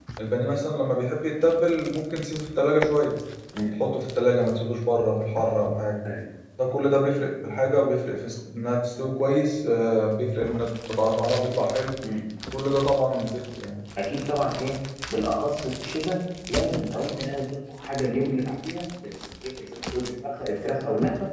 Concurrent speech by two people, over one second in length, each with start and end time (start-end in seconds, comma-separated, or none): none